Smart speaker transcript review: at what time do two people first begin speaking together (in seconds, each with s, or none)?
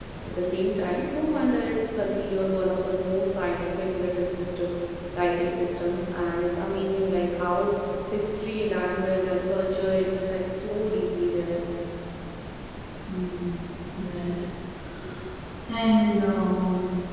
none